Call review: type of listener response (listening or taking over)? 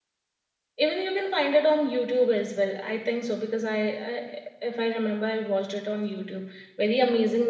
listening